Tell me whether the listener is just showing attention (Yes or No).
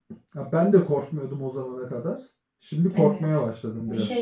No